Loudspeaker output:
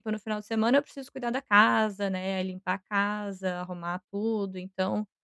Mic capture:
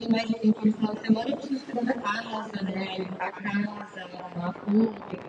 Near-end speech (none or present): none